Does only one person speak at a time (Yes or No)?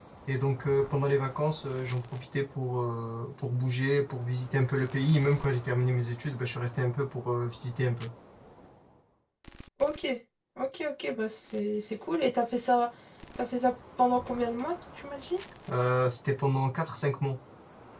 Yes